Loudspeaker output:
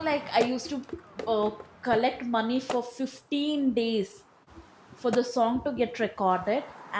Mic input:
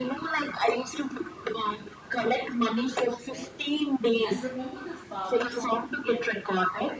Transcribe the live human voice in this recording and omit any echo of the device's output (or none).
right? And remember this Barbie song?